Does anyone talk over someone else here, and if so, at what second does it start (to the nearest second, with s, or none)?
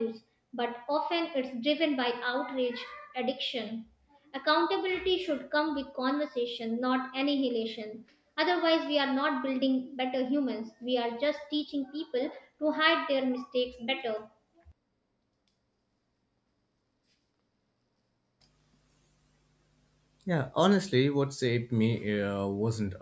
none